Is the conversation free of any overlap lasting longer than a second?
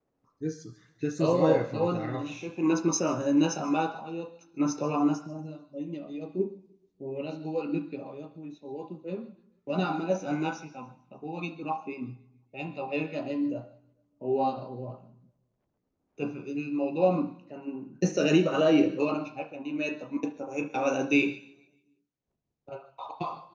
No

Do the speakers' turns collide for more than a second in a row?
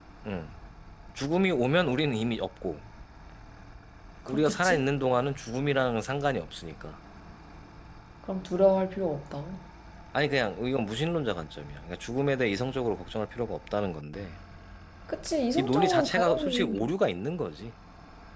Yes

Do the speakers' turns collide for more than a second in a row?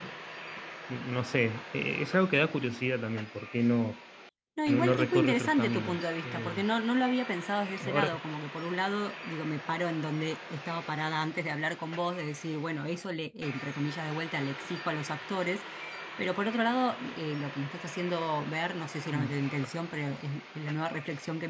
Yes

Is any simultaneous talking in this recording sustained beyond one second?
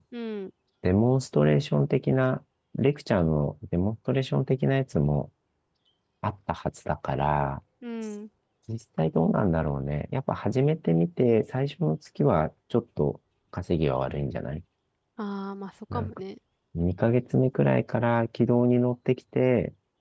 No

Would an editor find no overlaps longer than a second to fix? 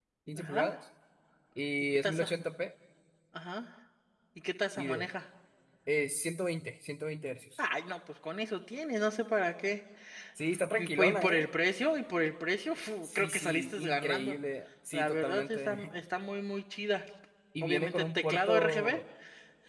No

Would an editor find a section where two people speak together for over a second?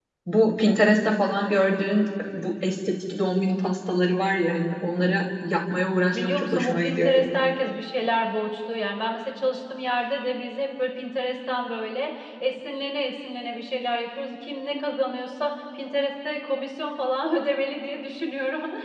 Yes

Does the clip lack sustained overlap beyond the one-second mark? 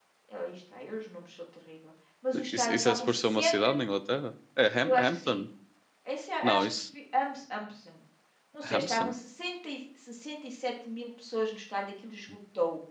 No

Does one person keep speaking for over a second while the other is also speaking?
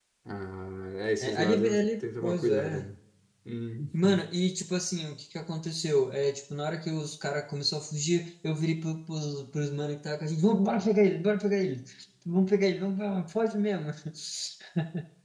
Yes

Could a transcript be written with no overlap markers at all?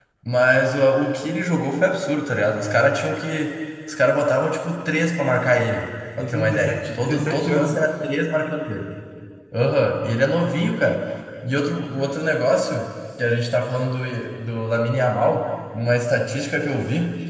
No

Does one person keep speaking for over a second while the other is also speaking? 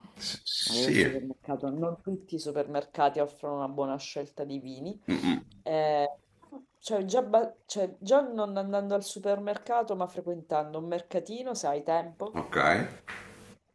No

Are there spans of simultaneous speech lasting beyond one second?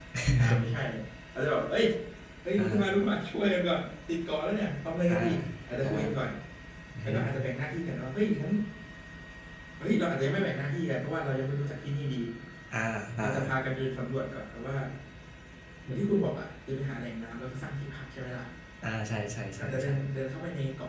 No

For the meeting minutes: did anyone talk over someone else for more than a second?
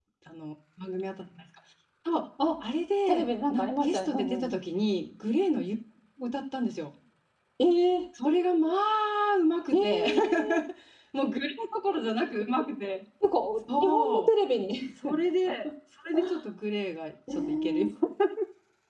Yes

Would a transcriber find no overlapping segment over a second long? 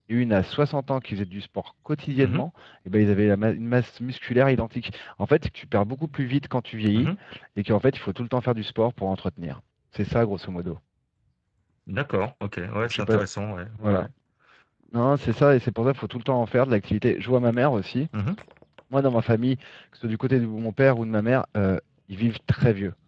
Yes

